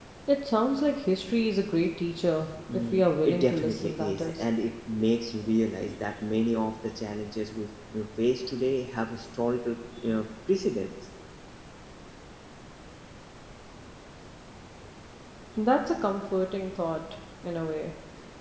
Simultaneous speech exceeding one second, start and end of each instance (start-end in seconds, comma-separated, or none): 2.7-4.4